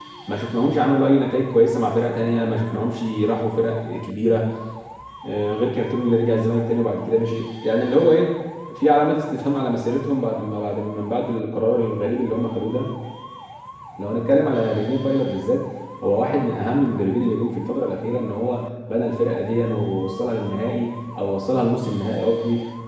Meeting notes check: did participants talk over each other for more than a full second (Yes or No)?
No